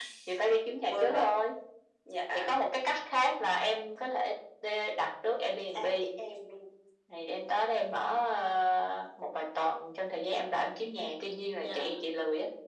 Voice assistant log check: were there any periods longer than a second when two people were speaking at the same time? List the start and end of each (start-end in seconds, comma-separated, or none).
none